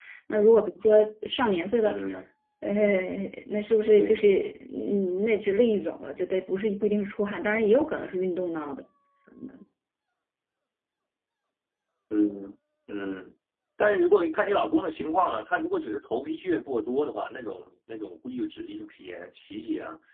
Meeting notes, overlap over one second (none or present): none